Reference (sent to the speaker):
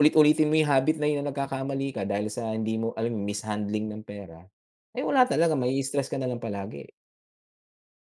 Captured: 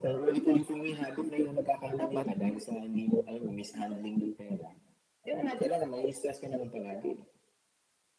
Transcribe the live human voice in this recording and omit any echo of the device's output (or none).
dapat